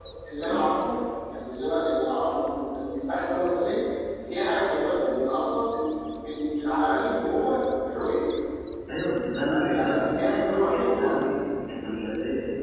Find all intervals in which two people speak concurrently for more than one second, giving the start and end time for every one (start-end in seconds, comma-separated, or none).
9.7-11.1